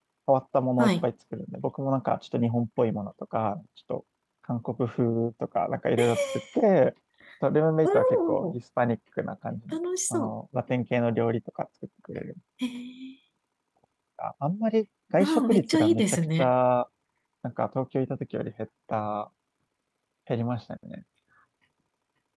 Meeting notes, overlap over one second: present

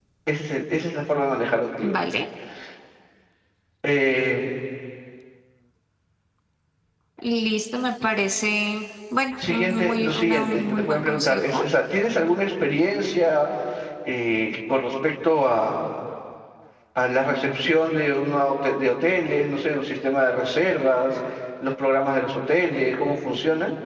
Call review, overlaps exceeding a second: present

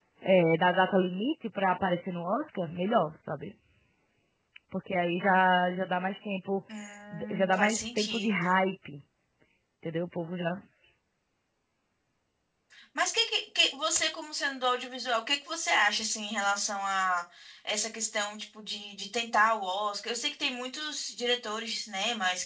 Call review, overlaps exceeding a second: present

